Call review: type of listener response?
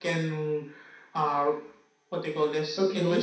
taking over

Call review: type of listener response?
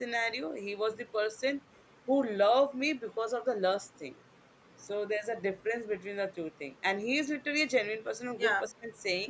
listening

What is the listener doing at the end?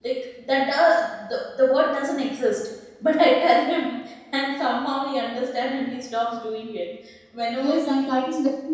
taking over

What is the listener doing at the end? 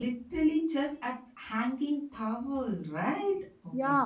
taking over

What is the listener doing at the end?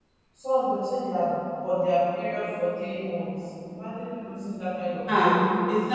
taking over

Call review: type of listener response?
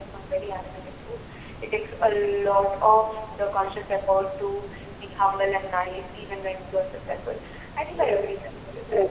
taking over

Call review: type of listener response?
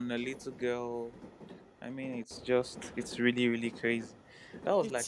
listening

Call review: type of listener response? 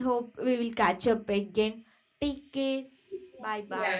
taking over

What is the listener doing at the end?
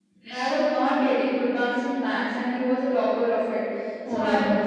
listening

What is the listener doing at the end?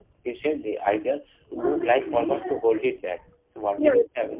taking over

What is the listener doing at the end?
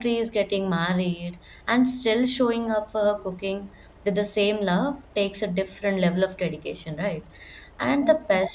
listening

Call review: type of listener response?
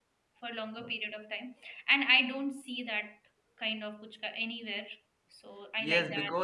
taking over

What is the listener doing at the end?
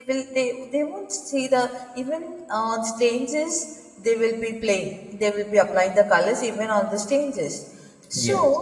listening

